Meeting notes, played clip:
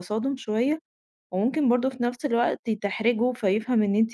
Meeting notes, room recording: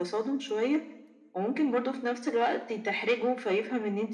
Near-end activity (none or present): none